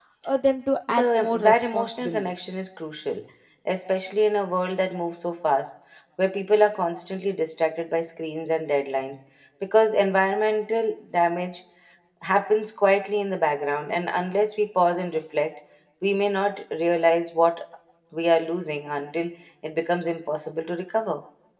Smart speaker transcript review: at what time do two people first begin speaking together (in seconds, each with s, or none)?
0.9 s